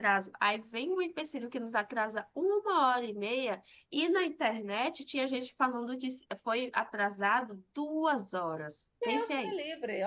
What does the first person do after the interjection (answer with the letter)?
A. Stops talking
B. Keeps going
A